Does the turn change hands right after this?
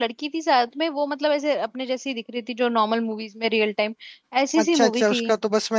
Yes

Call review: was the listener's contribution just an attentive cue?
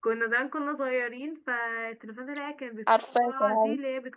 Yes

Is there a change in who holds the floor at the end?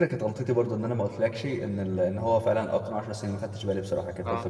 Yes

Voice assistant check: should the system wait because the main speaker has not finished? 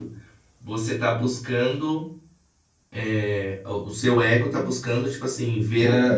Yes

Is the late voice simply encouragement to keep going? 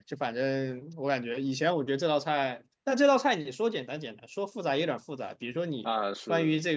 Yes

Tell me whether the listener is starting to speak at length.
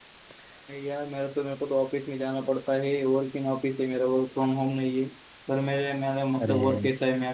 No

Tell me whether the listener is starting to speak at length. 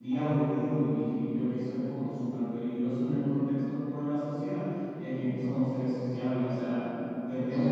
No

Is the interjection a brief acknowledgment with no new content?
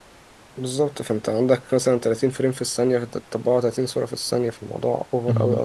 No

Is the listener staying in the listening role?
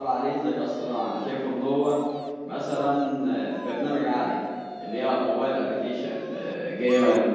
Yes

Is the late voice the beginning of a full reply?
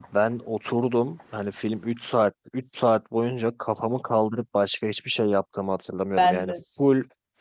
No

